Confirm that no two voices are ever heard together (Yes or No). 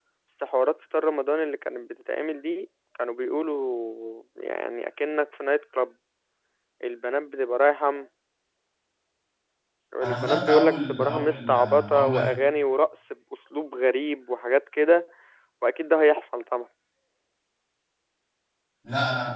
No